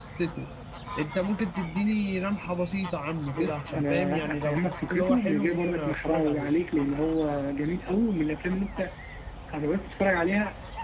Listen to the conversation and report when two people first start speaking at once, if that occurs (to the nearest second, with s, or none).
3 s